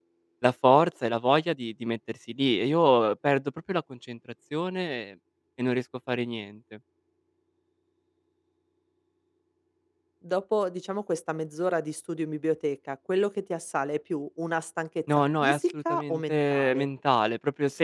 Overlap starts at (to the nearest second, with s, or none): 15 s